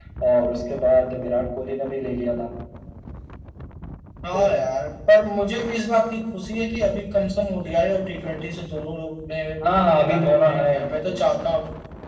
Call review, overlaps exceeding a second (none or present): present